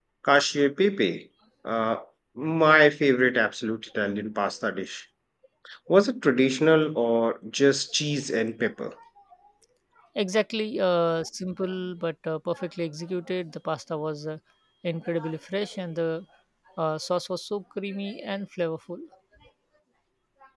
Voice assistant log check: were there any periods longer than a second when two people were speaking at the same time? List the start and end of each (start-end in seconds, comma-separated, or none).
none